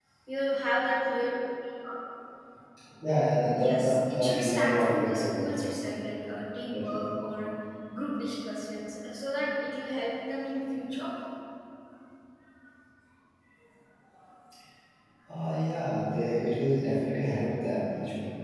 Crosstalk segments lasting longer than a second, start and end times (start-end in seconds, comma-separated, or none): 3.6-5.6